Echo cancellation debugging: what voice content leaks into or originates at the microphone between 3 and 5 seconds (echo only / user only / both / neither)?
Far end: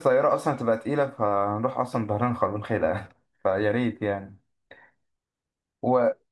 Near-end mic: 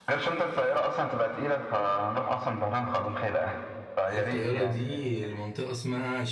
both